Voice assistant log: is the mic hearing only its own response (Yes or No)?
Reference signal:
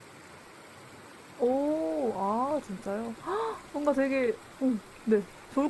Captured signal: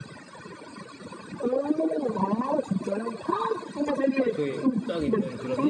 No